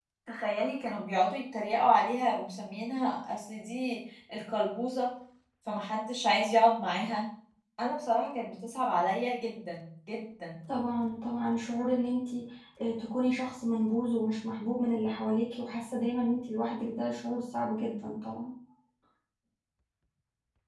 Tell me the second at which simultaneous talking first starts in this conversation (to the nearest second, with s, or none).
none